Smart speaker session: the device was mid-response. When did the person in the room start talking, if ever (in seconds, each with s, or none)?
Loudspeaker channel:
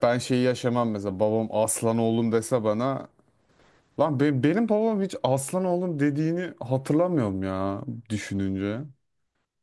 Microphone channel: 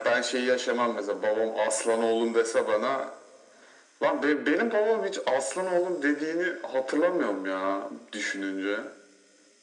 none